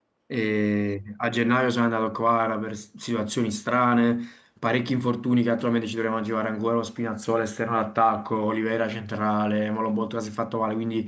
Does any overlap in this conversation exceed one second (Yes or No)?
No